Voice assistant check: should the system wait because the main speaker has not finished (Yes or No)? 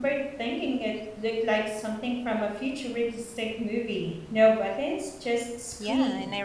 No